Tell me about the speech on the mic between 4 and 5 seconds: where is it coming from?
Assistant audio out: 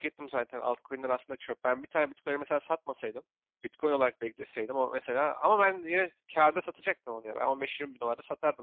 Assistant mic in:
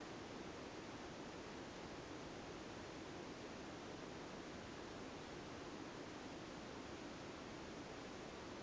neither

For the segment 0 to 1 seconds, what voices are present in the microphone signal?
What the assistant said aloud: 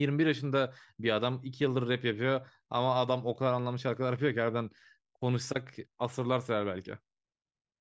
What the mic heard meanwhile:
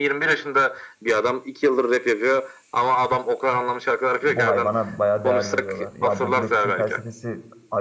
echo only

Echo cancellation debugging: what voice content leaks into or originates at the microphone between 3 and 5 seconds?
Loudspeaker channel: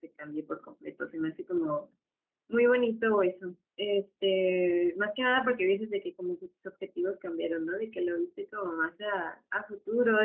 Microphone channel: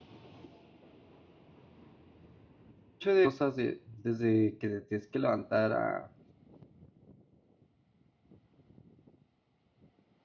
user only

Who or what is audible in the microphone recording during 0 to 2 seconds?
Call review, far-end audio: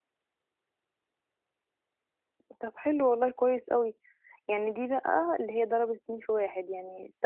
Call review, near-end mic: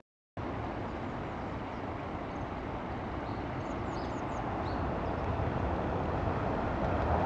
neither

